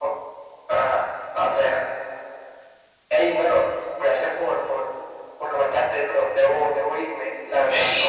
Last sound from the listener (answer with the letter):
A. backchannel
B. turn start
B